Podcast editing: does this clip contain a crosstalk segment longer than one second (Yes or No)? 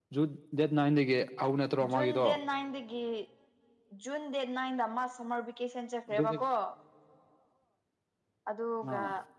No